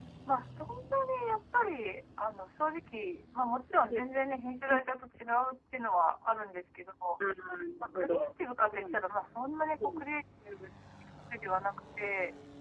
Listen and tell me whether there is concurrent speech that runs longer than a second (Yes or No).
No